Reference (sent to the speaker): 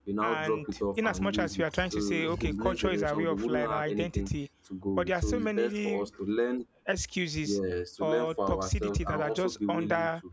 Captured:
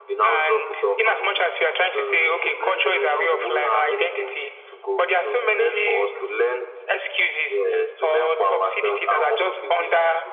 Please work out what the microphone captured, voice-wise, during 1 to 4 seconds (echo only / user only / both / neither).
echo only